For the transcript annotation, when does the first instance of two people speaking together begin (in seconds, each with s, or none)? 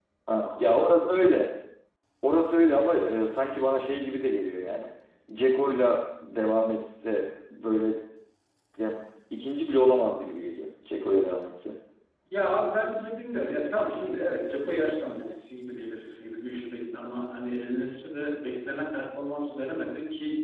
none